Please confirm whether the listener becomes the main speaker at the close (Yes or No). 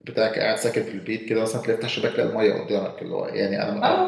Yes